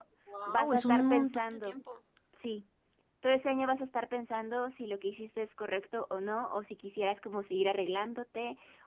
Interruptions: present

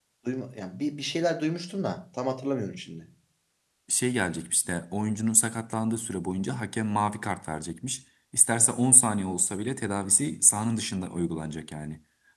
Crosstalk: none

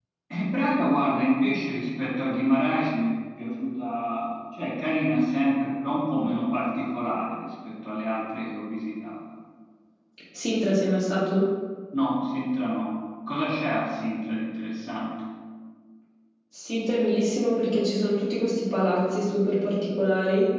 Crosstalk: none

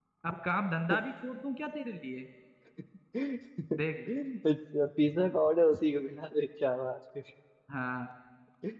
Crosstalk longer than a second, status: none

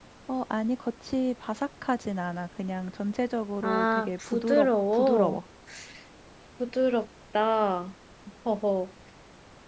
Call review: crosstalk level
present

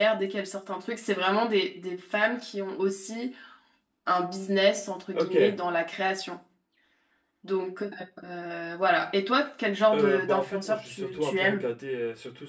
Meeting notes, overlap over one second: present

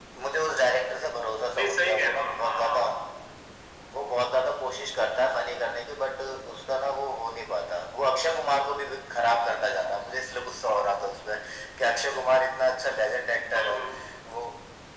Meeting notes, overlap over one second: present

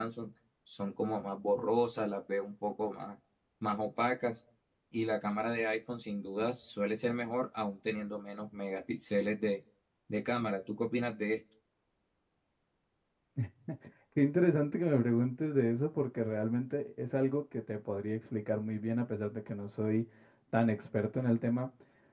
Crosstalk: none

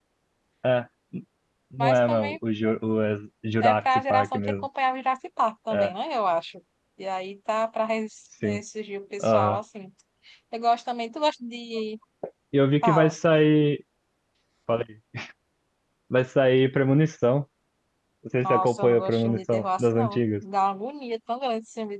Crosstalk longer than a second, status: present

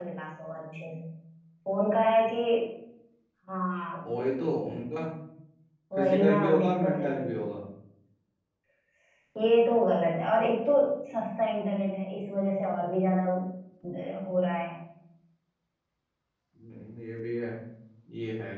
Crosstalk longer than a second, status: present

